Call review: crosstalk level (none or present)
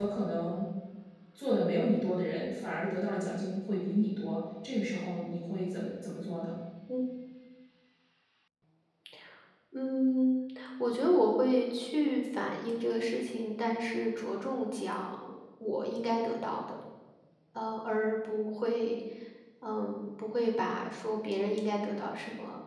none